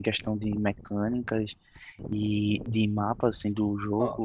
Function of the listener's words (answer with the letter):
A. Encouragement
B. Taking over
A